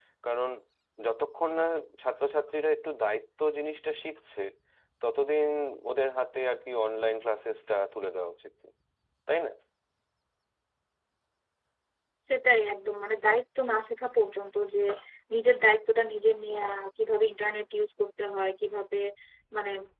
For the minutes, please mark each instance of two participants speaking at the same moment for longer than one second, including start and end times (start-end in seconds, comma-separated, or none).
none